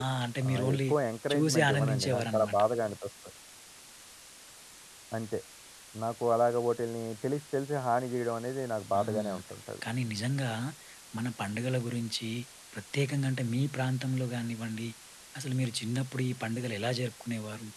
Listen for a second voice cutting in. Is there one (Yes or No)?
Yes